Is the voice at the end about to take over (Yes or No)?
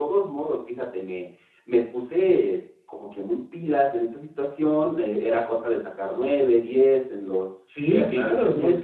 Yes